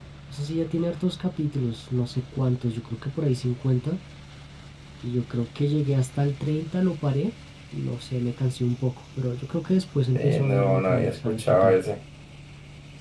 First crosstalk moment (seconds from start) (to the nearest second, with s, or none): 10 s